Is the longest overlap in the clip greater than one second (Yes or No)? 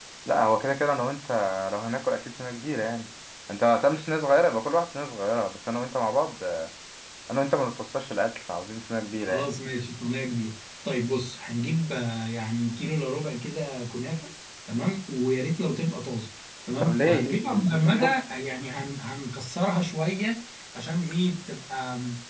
Yes